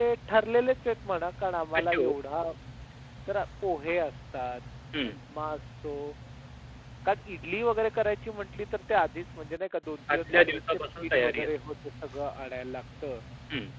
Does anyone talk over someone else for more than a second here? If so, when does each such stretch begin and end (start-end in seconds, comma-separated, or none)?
10.1-11.5